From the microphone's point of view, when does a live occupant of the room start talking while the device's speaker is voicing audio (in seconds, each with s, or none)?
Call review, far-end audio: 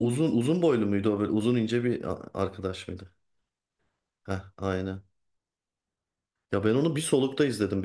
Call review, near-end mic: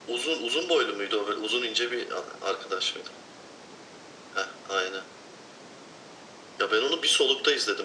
none